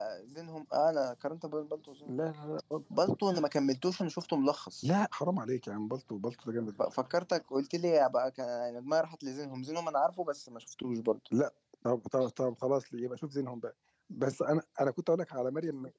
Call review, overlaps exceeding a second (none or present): none